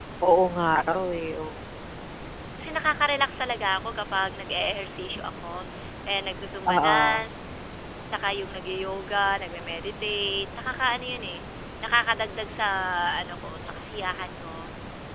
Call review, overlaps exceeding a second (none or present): none